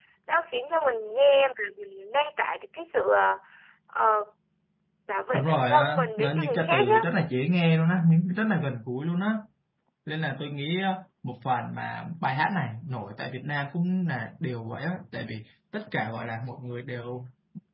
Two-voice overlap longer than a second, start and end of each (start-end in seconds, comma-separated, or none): 5.3-7.1